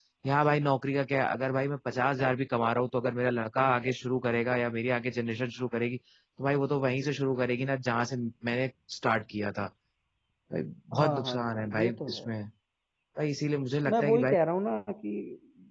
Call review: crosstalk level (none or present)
present